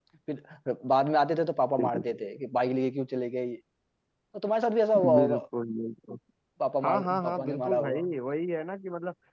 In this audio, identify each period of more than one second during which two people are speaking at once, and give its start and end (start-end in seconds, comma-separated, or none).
6.8-8.1